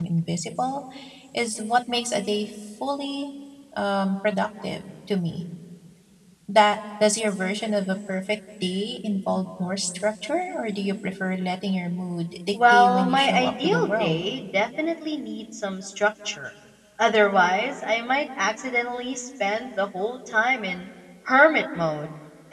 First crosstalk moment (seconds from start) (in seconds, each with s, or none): 12.5 s